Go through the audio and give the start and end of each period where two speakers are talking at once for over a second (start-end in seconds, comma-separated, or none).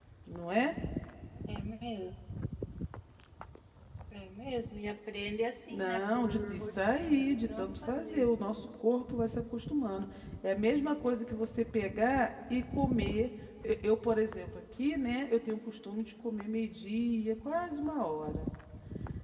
5.7-8.3